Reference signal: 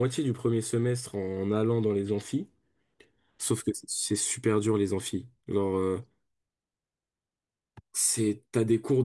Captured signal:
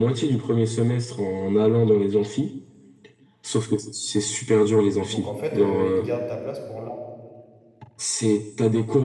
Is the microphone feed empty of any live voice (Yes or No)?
No